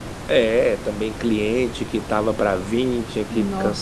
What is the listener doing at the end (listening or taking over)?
listening